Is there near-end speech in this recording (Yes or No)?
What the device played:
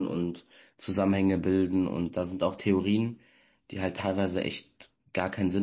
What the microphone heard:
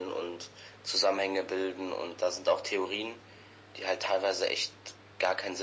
No